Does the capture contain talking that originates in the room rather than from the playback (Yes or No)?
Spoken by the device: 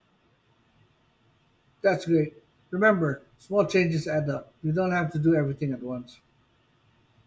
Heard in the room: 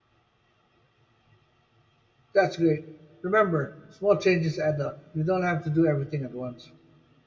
No